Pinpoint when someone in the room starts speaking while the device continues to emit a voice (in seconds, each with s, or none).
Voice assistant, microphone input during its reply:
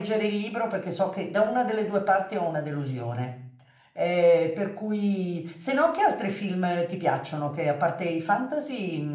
none